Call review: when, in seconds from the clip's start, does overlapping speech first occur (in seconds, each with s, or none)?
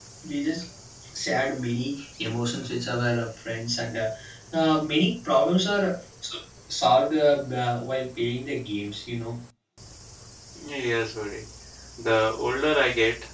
none